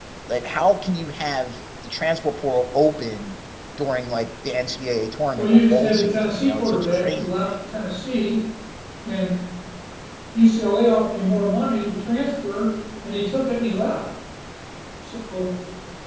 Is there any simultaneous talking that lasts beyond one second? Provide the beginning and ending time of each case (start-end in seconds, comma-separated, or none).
5.3-7.5